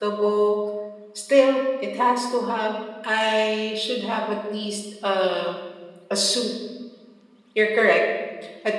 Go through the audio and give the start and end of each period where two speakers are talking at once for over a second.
none

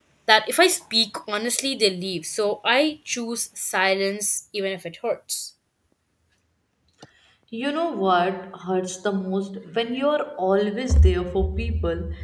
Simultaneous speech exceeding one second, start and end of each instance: none

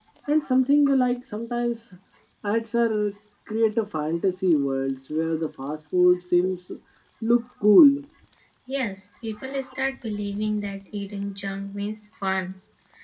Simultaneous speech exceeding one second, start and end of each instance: none

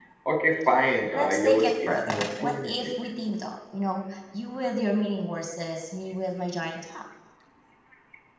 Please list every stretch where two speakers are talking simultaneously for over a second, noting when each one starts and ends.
1.1-2.7

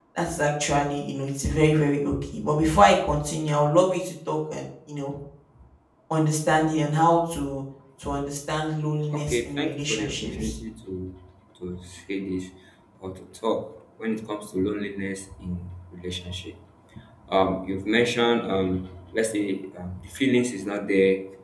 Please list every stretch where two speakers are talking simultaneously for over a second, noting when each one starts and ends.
9.1-10.6

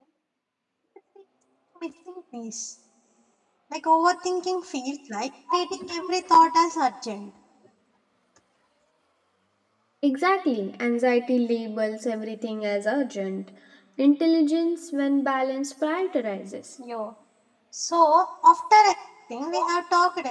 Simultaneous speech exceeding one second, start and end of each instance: none

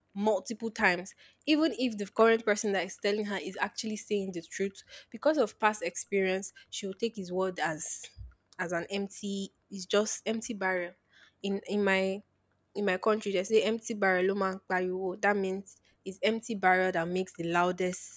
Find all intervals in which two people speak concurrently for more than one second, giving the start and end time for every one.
none

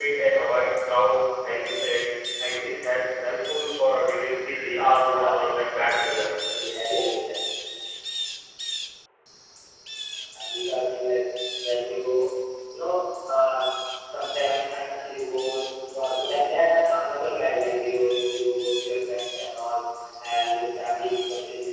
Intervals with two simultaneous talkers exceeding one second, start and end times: 5.0-6.3

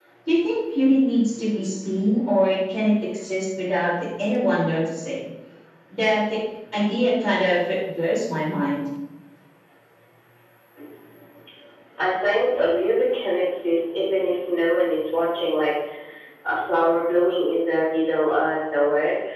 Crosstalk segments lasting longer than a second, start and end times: none

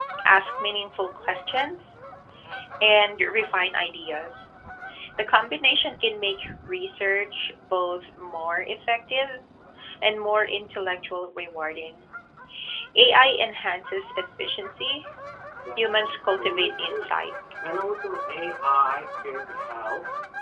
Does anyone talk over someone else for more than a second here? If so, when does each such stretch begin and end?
15.8-17.1

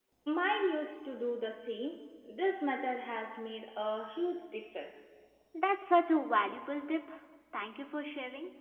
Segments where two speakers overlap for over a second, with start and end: none

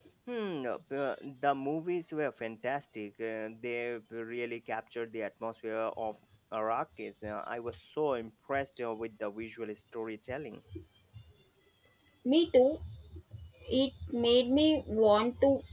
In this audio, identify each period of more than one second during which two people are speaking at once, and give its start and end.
none

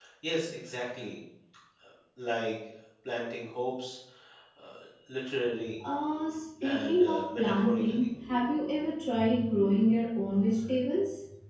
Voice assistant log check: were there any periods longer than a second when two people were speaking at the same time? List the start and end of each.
6.6-8.1

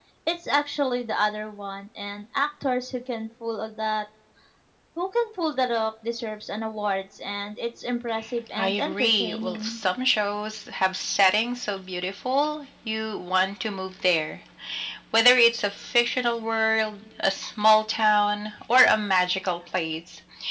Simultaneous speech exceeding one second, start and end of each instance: 8.6-9.8

